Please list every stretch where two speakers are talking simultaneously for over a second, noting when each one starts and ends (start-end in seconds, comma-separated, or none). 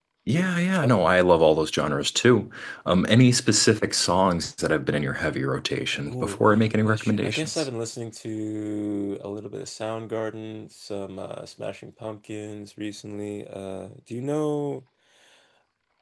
6.1-7.7